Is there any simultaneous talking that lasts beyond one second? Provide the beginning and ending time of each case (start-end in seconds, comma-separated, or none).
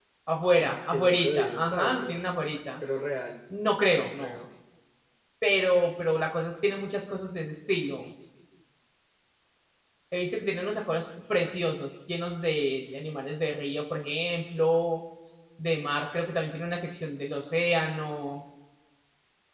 0.6-2.2